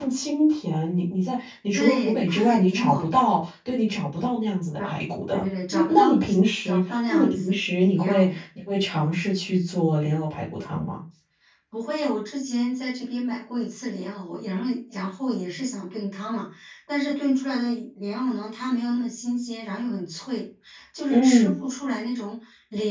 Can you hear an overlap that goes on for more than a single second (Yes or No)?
Yes